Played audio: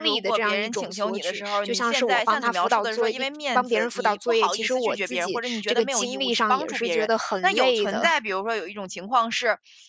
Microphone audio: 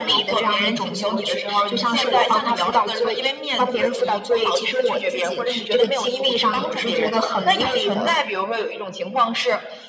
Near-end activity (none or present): none